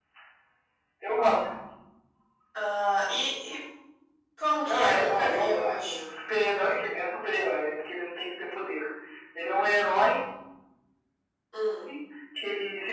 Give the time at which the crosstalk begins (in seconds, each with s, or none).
4.6 s